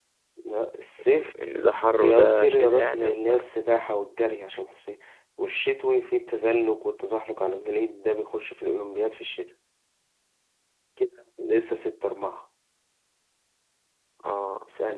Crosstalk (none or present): present